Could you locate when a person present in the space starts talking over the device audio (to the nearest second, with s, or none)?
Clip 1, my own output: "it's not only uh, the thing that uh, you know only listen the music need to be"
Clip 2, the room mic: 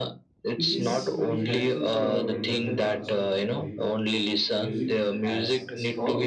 1 s